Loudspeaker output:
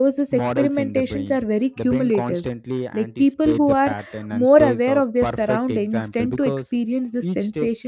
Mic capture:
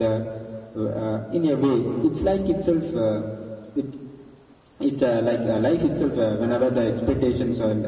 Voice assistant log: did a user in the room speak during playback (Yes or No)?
Yes